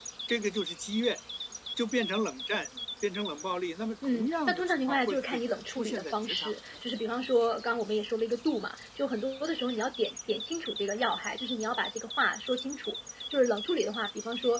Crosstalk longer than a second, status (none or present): present